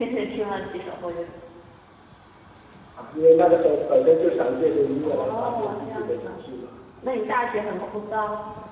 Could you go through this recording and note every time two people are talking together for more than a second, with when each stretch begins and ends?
5.0-6.4

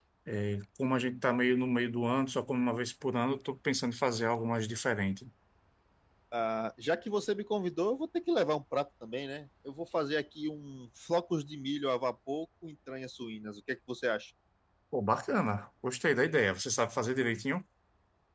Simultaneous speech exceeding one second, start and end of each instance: none

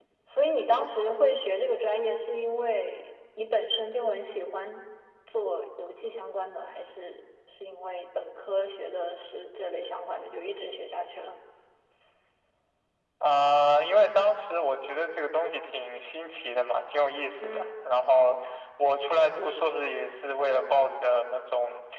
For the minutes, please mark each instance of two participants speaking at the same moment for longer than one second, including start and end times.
none

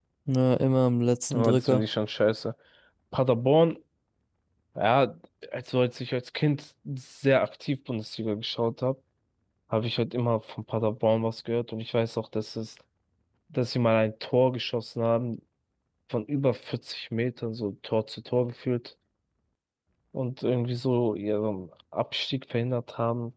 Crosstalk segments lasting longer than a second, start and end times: none

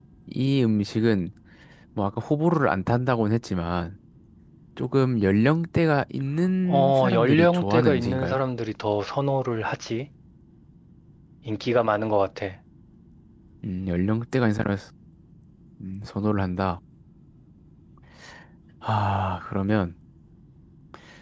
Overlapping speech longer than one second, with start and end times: 6.7-8.4

